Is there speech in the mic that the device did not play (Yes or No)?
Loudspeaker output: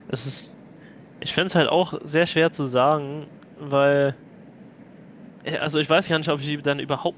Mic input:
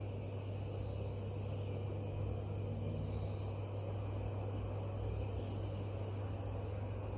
No